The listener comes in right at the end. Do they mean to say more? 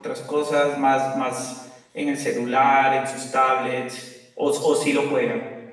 Yes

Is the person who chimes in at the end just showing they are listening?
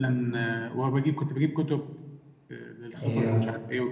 Yes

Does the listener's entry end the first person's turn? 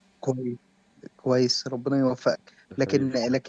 No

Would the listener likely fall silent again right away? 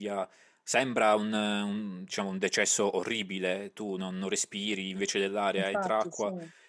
Yes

